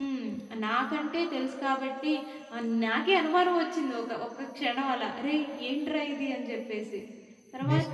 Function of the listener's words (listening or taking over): taking over